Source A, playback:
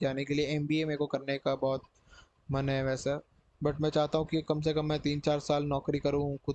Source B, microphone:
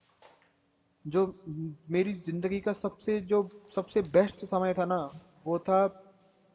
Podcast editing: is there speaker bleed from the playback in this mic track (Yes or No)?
No